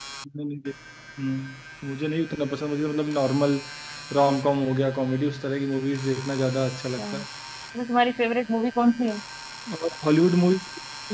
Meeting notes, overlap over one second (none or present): none